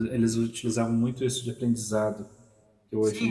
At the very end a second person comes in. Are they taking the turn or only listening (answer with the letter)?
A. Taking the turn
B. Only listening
A